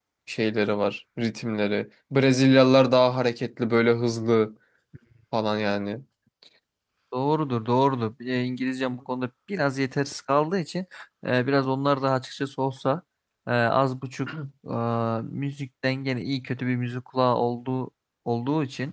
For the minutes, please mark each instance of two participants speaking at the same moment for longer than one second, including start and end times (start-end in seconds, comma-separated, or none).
none